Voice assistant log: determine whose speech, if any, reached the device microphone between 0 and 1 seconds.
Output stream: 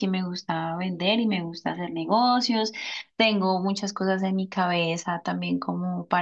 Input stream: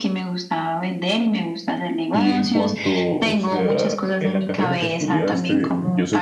echo only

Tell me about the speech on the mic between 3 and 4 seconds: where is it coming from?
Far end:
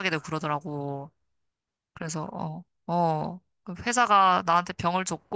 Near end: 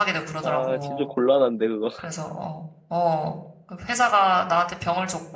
echo only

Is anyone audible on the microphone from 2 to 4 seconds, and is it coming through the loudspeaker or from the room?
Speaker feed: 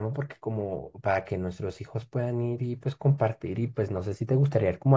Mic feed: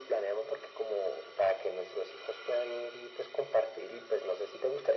echo only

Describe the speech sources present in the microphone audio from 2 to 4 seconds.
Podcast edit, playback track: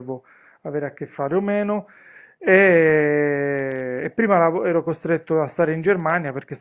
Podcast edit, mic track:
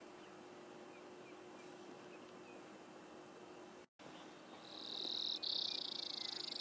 neither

